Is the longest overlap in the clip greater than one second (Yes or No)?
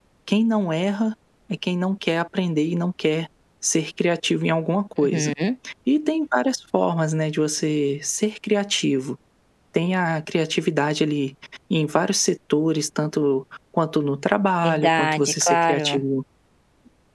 Yes